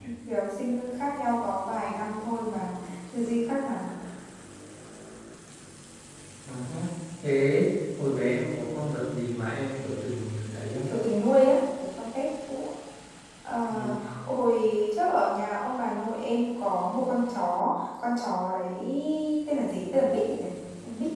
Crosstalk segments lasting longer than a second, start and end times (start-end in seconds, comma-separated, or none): none